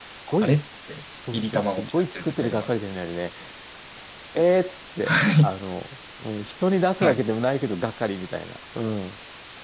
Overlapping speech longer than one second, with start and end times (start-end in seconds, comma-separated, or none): 1.3-2.7